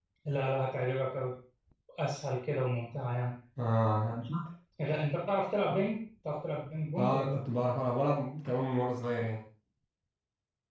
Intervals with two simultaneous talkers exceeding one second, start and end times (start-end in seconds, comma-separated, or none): none